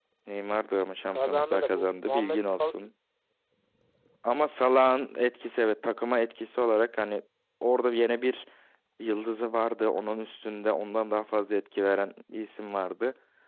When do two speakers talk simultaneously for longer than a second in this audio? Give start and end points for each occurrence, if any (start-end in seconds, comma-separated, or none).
1.1-2.6